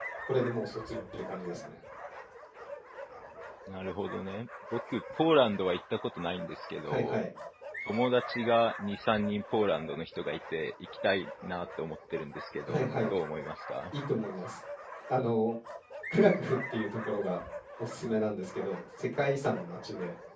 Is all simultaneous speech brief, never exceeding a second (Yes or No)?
Yes